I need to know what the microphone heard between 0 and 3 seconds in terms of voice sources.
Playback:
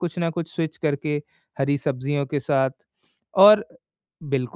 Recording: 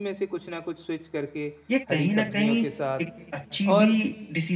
both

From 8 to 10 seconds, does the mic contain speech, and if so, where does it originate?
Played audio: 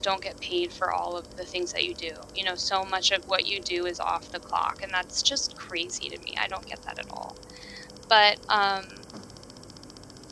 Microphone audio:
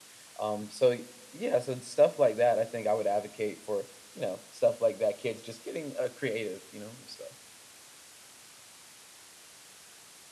neither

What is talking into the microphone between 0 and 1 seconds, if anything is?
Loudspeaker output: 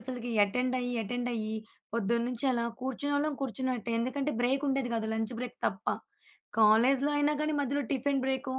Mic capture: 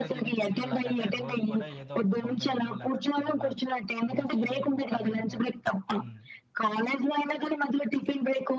both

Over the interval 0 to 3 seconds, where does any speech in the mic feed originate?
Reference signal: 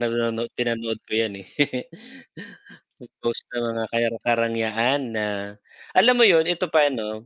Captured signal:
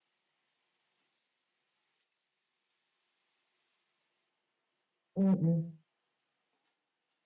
neither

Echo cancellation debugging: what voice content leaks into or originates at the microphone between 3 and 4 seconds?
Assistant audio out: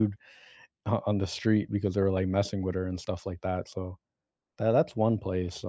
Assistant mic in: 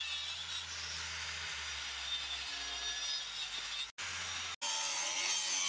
neither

